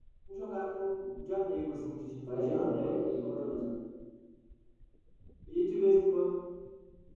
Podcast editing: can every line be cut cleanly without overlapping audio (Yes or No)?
No